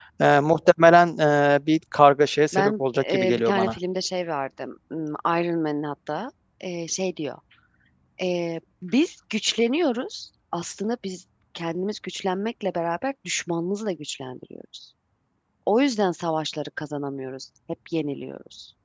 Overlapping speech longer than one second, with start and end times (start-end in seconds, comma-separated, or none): 2.5-3.7